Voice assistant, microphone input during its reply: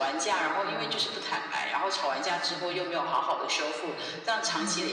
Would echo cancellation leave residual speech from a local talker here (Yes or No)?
Yes